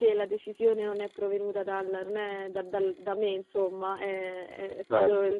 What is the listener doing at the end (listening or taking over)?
listening